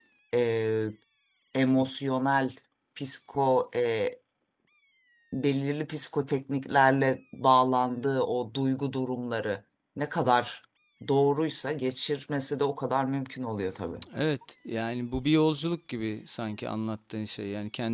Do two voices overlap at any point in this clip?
No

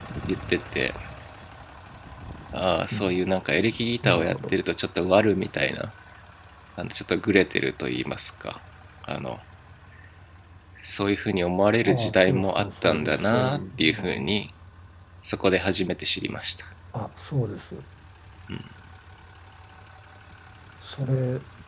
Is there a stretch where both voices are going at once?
Yes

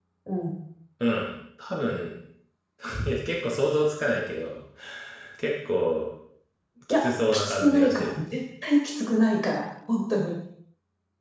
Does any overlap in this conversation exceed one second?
Yes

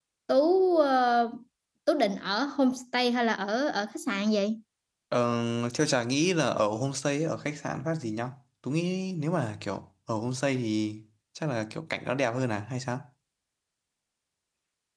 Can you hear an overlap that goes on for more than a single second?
No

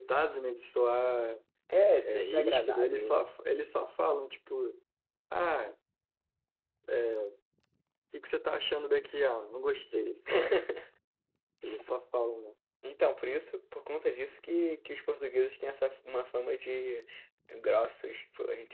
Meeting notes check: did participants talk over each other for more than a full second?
Yes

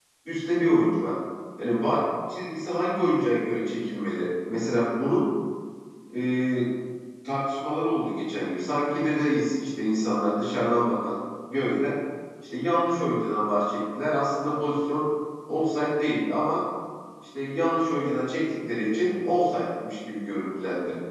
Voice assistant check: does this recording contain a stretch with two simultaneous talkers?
No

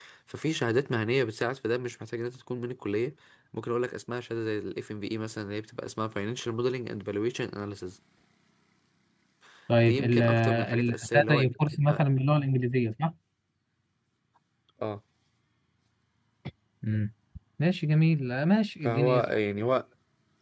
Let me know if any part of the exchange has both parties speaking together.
Yes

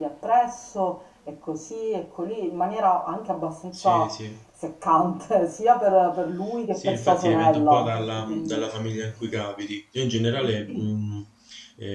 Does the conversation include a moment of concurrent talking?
Yes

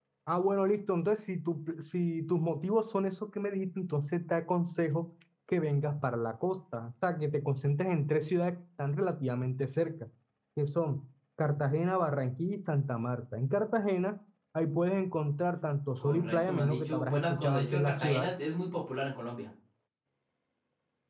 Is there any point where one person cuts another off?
Yes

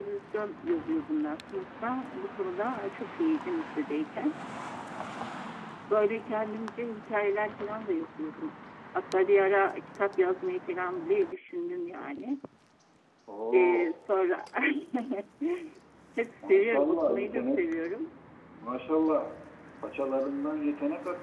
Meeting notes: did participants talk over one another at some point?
Yes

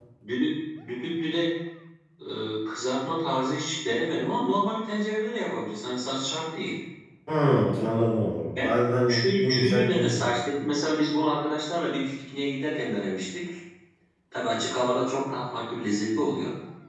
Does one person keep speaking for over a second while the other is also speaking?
Yes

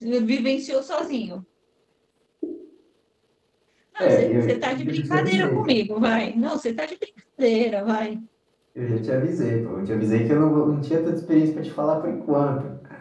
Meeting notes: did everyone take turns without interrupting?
No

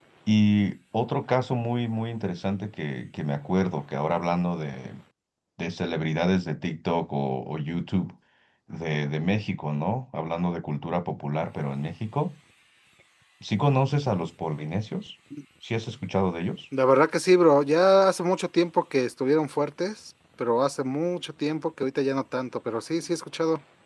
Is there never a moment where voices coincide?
Yes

